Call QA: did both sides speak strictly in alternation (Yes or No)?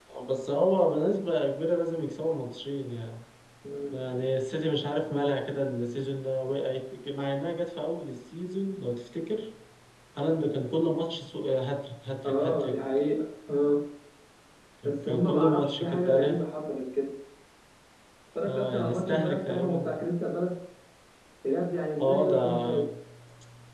No